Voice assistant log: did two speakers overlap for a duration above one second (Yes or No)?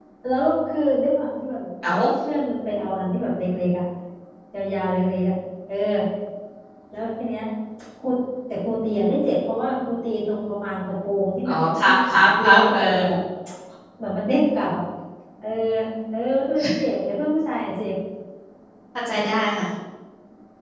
Yes